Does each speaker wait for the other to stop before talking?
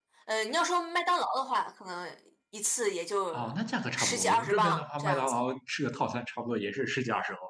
No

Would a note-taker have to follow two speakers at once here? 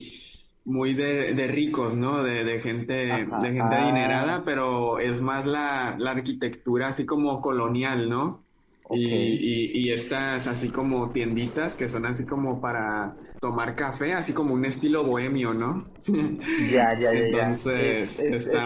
Yes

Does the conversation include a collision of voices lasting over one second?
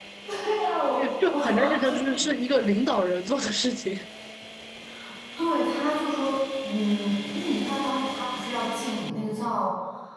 Yes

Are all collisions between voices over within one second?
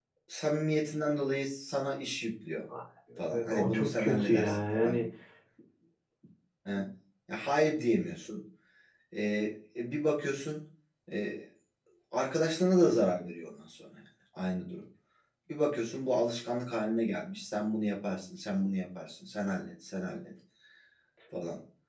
No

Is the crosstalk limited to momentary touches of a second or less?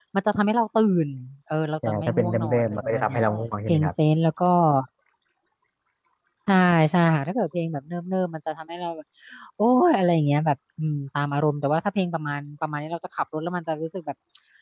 No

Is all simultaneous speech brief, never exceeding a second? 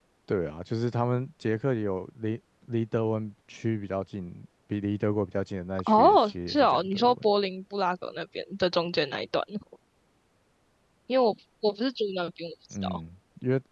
No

